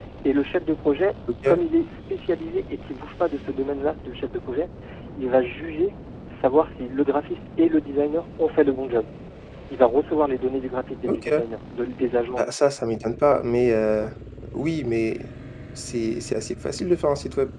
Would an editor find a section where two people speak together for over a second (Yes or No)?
No